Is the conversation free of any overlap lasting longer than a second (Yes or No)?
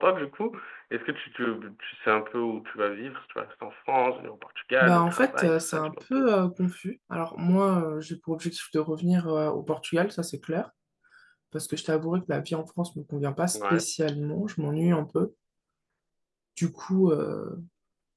No